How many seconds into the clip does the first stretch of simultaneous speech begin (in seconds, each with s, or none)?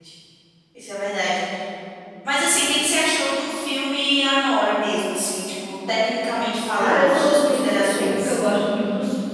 6.8 s